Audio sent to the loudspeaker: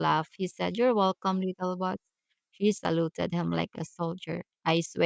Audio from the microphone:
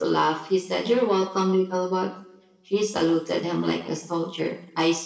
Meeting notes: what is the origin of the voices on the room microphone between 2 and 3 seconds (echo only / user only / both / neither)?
echo only